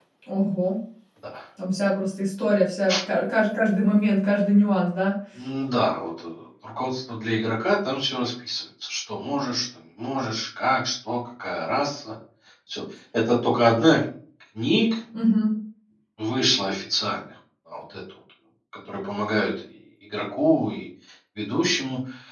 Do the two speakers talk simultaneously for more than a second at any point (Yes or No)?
No